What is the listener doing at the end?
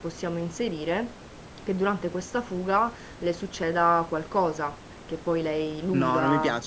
taking over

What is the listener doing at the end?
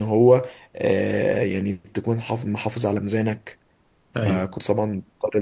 listening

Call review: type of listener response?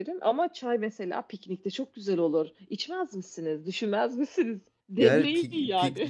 taking over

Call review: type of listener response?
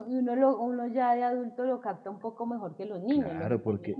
taking over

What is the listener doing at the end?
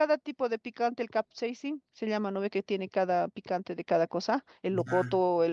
listening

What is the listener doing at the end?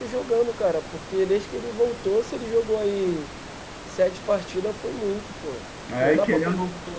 taking over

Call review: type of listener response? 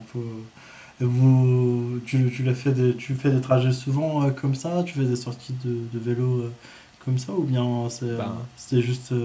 listening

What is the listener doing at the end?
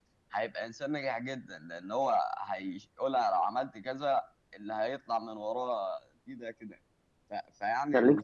taking over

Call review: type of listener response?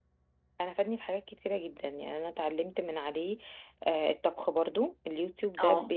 listening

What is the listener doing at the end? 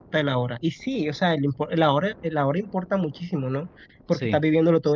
listening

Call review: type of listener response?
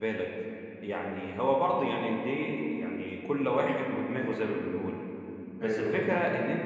listening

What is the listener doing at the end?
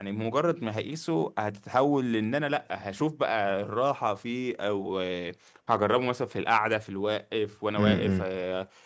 listening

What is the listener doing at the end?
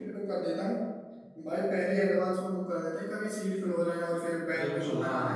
taking over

